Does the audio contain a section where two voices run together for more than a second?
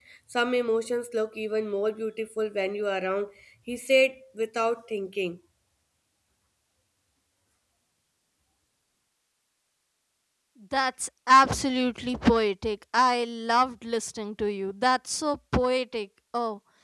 No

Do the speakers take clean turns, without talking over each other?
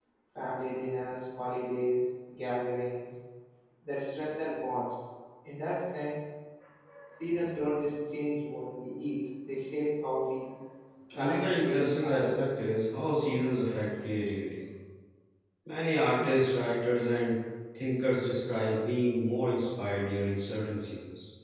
No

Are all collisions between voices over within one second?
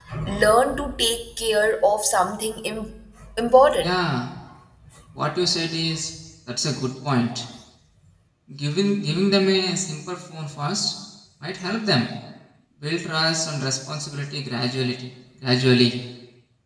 Yes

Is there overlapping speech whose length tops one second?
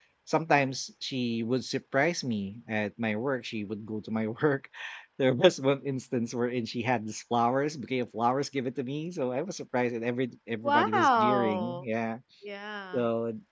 Yes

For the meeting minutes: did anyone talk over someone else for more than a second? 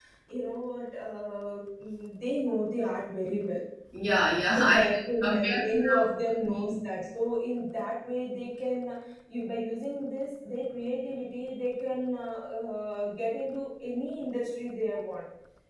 Yes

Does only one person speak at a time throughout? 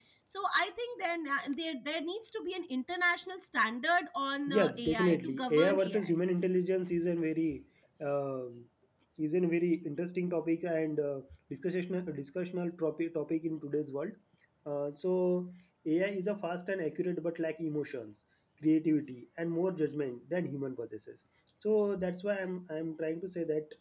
No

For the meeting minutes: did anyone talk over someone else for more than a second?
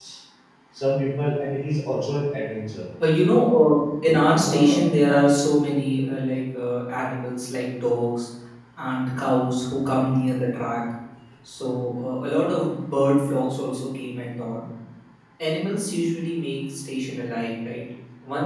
No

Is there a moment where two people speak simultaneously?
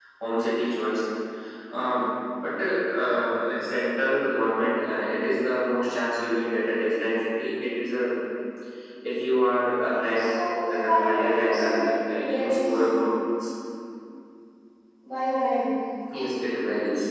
Yes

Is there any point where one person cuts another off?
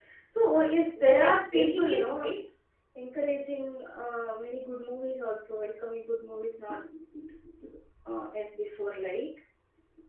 Yes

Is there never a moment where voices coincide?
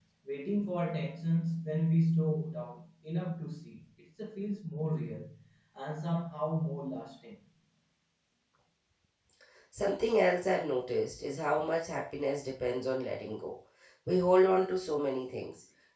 Yes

